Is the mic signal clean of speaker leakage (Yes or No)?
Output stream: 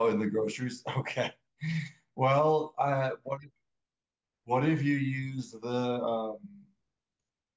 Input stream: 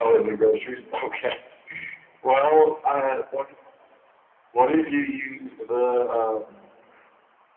No